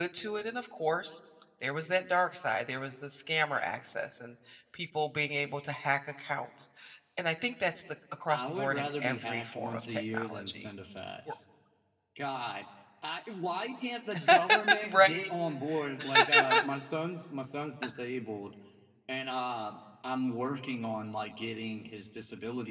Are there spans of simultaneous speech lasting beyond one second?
Yes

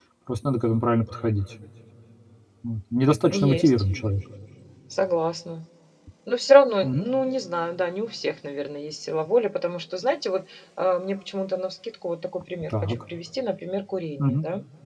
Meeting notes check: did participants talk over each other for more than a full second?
No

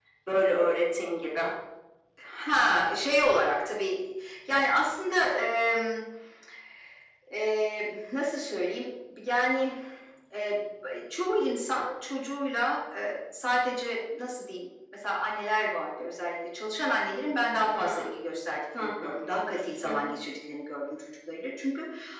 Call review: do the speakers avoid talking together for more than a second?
Yes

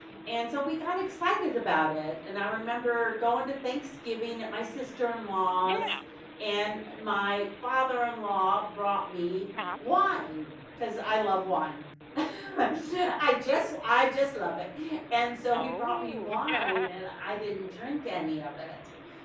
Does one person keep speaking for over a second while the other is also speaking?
Yes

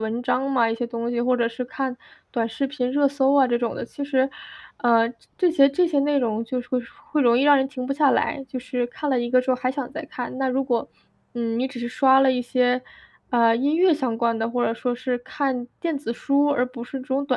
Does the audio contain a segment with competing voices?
No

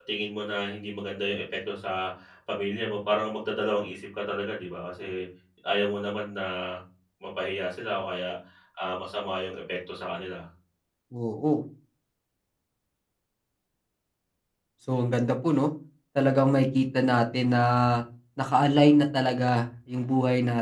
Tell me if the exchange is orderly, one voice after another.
Yes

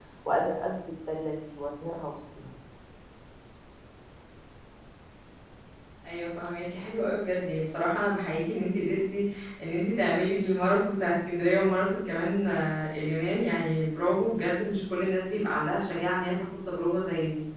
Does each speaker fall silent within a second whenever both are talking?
Yes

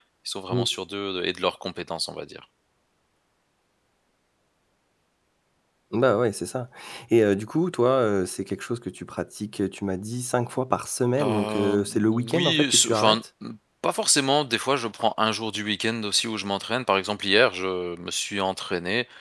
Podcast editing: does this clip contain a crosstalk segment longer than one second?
Yes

